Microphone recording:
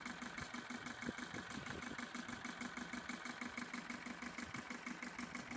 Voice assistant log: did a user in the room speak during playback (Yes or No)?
No